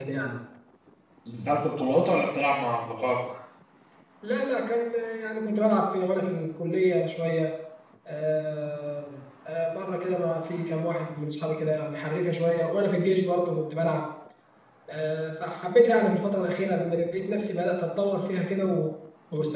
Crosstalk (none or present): none